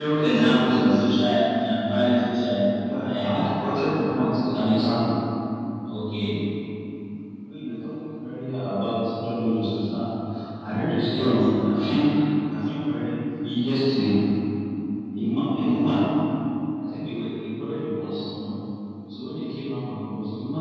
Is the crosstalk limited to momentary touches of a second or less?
Yes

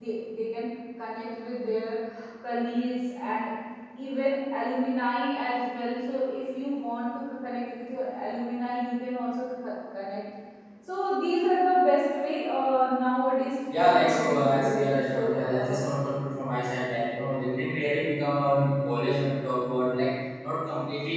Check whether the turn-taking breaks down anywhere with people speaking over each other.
Yes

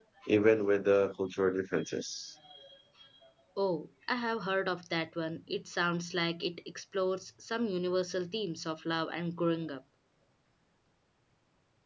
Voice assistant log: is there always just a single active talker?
Yes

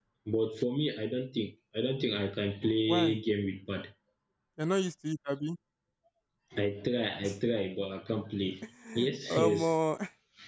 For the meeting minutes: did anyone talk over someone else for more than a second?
No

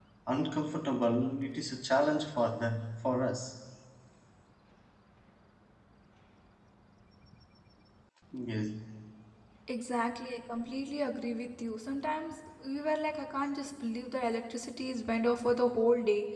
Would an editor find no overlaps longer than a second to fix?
Yes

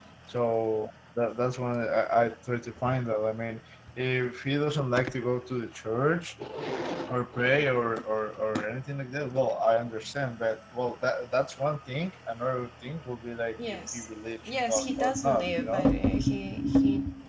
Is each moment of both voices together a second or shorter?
No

